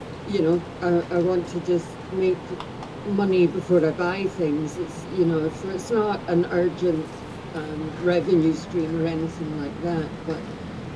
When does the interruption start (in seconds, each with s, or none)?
none